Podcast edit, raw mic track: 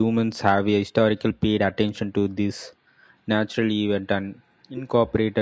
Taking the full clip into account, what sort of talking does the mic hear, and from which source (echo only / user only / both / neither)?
user only